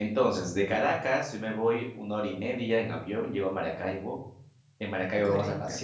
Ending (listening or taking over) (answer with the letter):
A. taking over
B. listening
B